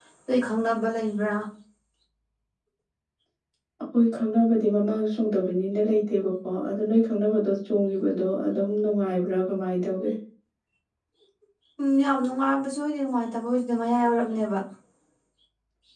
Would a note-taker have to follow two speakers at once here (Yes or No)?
No